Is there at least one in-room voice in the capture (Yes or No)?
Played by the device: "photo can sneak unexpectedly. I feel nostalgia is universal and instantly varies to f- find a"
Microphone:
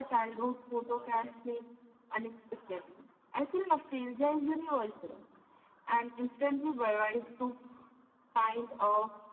No